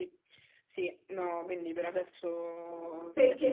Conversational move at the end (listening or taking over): taking over